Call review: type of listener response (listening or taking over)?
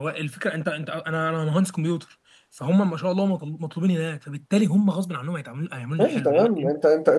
taking over